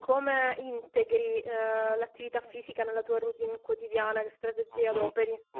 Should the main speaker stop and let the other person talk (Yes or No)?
Yes